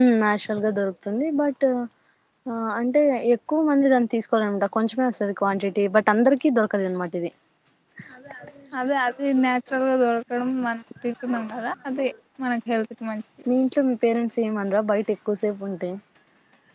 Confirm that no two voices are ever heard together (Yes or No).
Yes